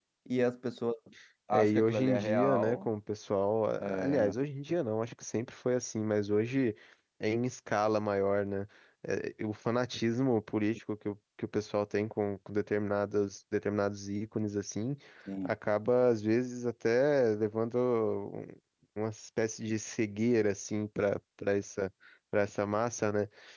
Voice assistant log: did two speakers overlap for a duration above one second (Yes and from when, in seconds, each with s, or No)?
Yes, from 1.5 s